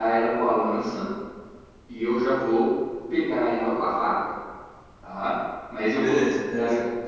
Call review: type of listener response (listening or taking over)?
listening